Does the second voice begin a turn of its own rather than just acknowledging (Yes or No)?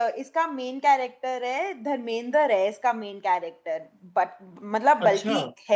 No